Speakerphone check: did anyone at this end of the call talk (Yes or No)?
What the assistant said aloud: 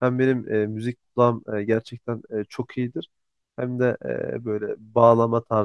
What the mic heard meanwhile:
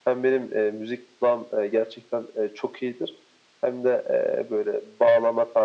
No